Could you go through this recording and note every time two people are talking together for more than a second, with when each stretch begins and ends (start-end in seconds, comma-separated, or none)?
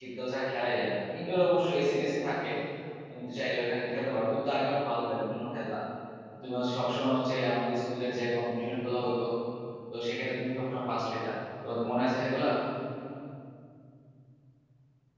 none